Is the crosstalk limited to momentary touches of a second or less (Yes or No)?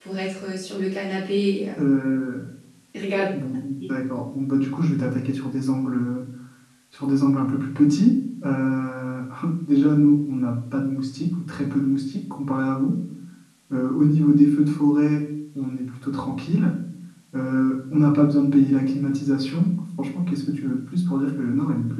Yes